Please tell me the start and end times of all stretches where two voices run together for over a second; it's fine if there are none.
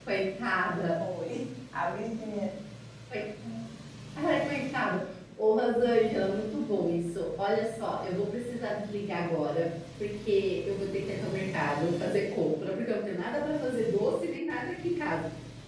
none

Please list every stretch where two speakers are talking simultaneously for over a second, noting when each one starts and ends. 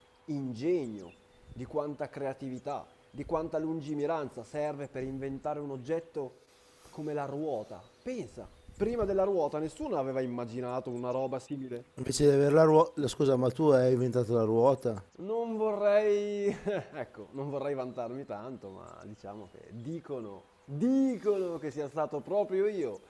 none

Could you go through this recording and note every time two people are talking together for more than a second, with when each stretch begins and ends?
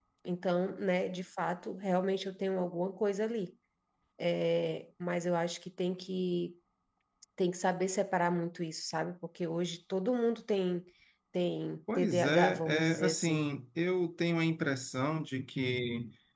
11.9-13.4

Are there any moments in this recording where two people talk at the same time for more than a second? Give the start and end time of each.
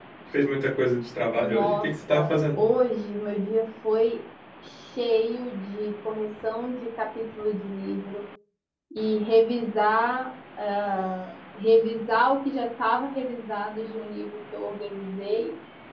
1.3-2.6

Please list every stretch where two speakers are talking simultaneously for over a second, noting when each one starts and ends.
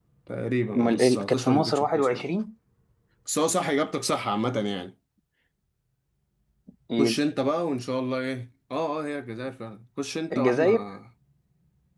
0.8-2.2

